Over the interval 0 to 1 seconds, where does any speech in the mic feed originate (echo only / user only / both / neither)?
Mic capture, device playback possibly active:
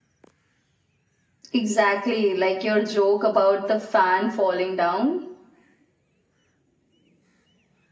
neither